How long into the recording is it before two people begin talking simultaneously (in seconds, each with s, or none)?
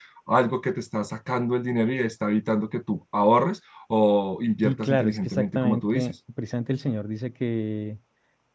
4.6 s